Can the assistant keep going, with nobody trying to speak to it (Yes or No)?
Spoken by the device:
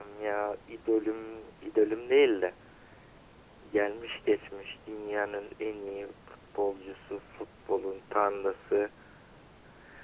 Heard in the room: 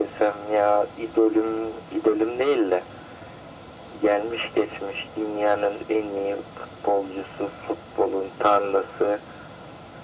Yes